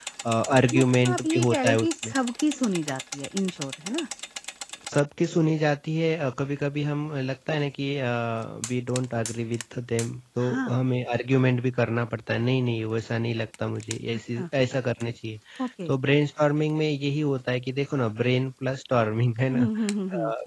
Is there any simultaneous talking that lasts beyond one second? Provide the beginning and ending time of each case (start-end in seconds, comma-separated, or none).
0.7-2.1